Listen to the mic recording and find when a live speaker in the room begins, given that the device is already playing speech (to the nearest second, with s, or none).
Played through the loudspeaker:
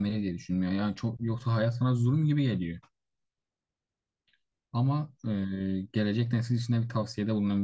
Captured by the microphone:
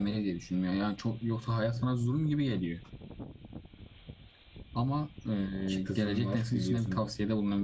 6 s